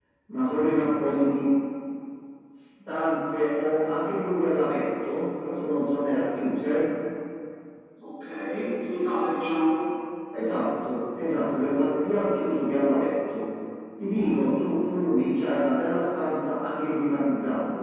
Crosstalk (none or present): none